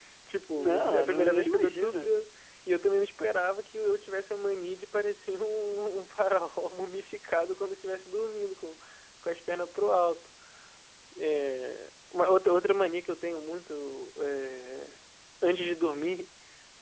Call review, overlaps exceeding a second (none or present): present